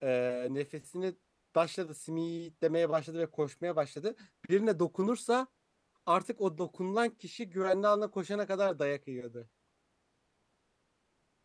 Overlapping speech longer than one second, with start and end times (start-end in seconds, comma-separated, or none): none